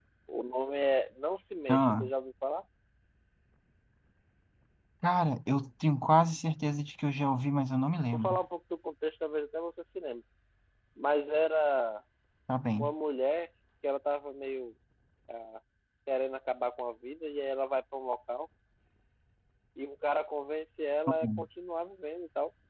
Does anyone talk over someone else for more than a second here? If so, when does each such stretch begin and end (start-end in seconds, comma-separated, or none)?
none